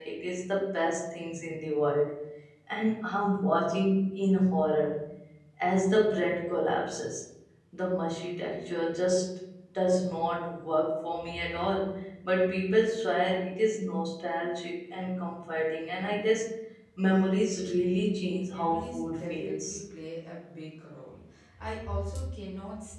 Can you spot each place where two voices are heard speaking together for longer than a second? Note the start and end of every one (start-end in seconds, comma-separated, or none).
18.4-19.8